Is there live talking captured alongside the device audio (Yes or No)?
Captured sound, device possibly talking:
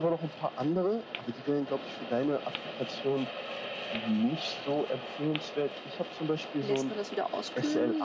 Yes